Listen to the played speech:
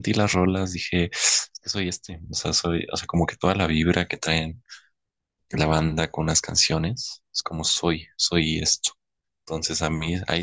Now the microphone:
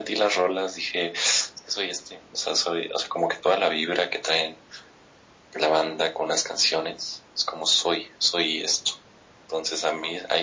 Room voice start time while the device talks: none

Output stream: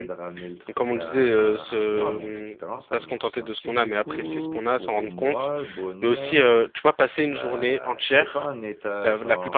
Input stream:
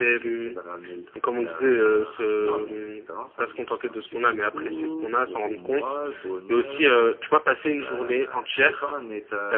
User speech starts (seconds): none

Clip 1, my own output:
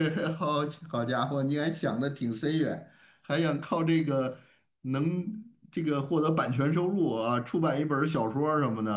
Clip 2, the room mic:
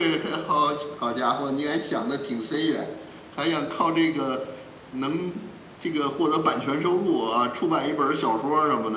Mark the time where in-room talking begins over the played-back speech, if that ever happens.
none

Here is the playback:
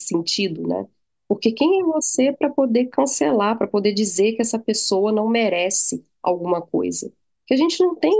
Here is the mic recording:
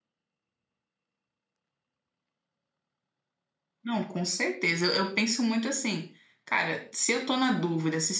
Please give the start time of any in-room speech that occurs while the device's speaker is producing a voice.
3.8 s

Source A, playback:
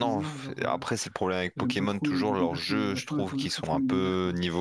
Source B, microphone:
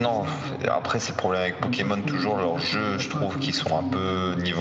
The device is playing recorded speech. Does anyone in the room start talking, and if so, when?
none

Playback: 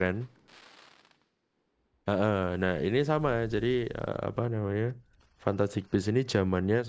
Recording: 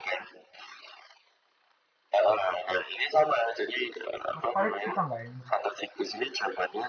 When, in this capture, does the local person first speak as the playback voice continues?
4.3 s

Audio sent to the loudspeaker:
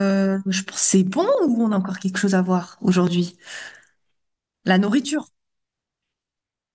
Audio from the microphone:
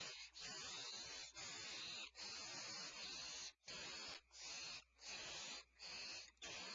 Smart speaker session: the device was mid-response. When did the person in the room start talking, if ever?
none

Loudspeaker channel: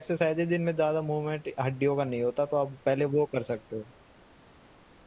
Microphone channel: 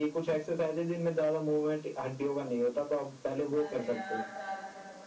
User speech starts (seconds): 3.5 s

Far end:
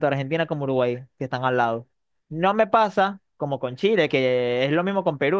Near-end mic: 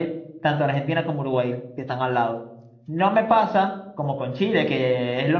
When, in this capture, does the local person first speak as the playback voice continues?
none

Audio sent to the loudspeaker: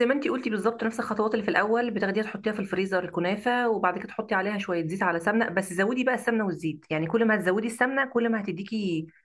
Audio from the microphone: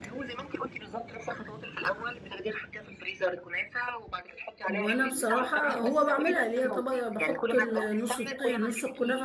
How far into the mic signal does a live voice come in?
4.7 s

